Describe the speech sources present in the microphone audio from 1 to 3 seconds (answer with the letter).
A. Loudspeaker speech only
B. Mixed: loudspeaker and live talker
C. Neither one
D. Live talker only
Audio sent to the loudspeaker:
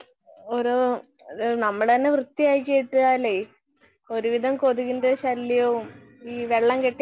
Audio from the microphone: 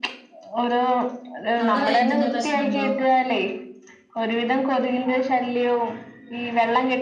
B